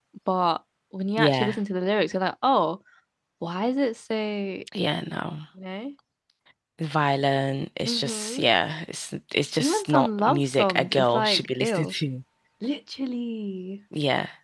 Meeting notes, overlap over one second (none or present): present